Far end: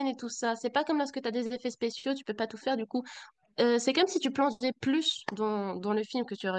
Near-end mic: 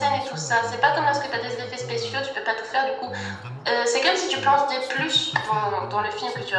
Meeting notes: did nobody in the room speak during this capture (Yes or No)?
No